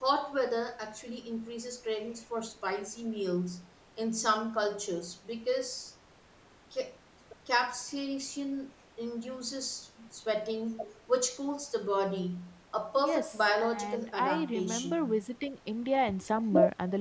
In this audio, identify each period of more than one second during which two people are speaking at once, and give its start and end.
13.0-15.2

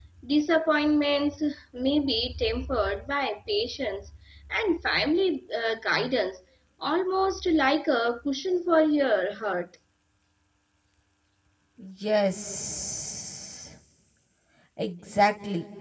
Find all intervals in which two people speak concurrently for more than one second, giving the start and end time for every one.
none

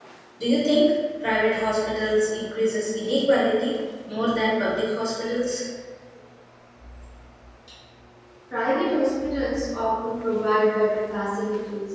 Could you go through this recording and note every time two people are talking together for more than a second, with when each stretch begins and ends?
none

